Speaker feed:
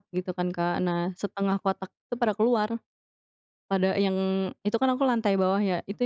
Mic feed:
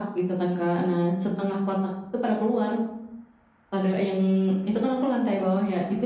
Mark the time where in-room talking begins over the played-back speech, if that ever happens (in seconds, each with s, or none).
none